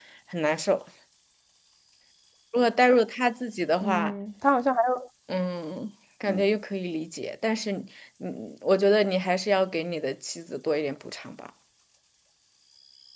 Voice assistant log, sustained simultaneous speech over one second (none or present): none